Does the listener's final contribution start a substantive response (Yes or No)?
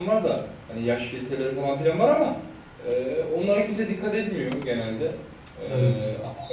No